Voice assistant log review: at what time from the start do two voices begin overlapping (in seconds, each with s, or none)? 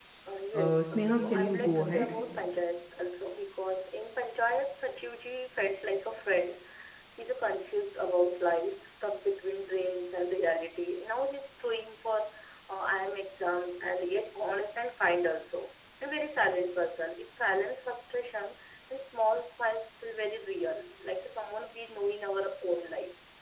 0.5 s